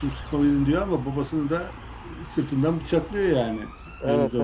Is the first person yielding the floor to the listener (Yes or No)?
Yes